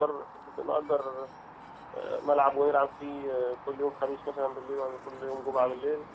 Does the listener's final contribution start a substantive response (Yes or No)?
Yes